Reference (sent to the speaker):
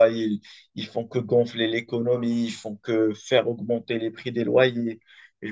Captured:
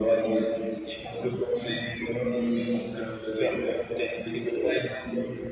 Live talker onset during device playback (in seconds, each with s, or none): none